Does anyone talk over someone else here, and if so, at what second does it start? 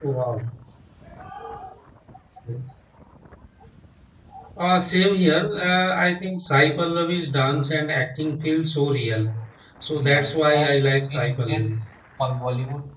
10.0 s

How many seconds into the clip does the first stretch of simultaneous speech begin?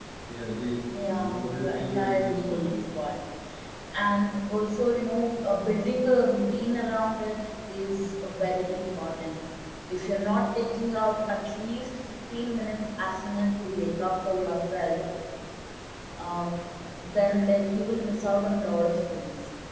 1.1 s

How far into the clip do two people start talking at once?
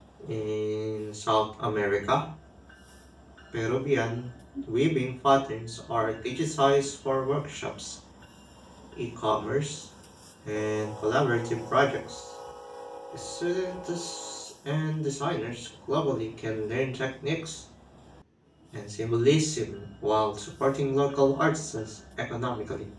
none

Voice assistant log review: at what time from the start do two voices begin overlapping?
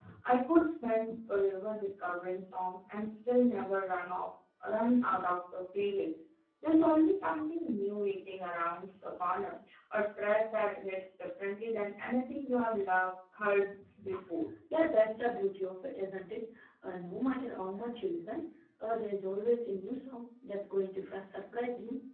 none

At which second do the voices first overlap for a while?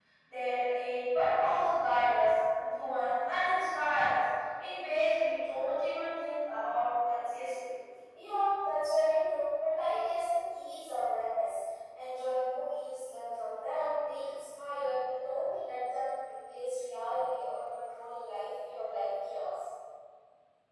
none

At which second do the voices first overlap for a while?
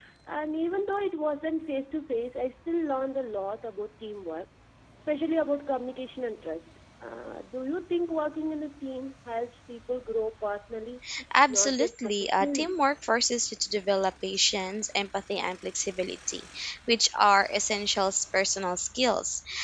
11.5 s

